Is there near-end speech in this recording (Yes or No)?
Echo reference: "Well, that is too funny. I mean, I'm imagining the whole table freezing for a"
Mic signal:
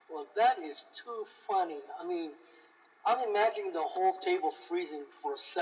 No